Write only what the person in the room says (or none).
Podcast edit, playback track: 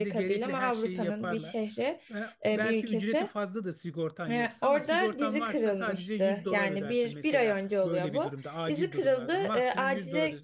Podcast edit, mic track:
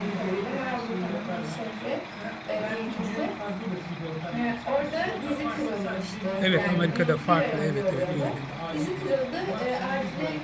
Evet Amerika'da farklı. Evet evet öyle.